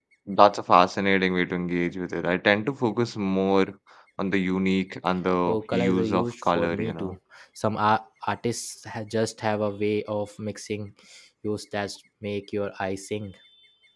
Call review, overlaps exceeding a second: present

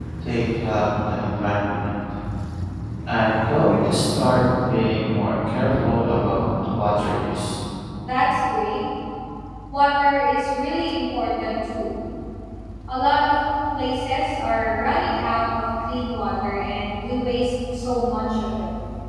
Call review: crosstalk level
none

